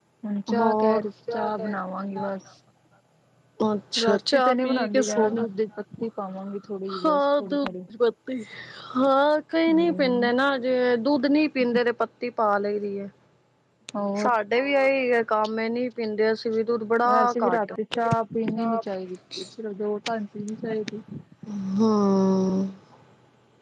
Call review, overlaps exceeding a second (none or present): present